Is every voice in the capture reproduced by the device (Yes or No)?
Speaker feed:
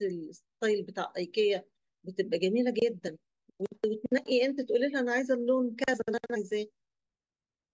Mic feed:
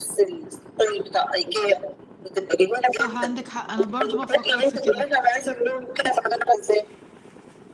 No